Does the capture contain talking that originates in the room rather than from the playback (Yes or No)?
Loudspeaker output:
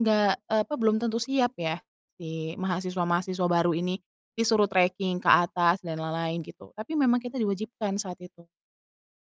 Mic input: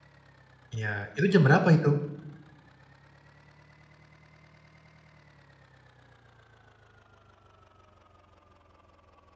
Yes